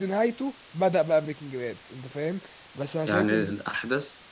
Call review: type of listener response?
taking over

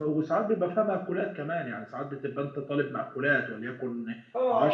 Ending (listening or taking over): taking over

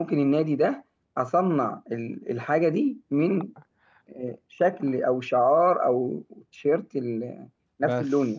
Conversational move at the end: taking over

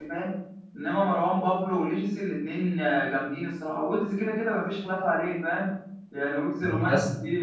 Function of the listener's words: listening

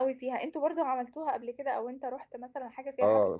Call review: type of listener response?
taking over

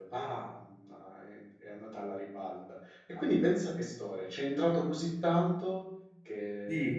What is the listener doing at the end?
taking over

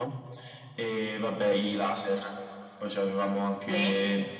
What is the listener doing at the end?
listening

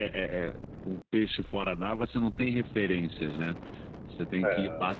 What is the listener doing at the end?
listening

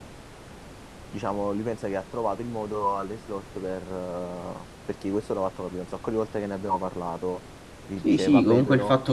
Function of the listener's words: taking over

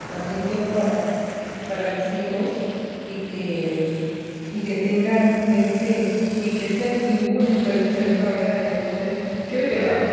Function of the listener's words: listening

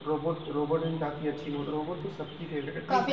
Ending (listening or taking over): taking over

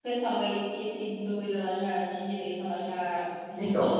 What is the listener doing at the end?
taking over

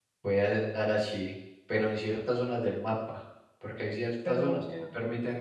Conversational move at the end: listening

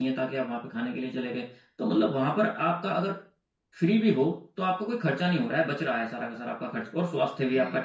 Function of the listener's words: listening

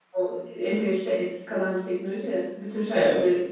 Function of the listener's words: listening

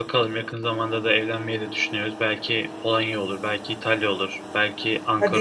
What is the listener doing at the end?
taking over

